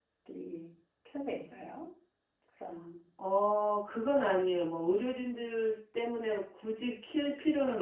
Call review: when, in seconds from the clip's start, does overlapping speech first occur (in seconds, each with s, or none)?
none